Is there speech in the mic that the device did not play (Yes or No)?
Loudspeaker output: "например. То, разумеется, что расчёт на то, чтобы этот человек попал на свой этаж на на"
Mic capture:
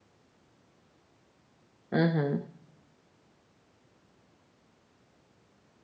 Yes